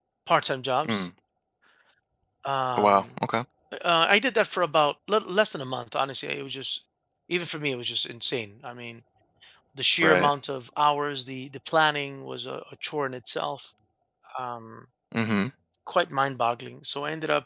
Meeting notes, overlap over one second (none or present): none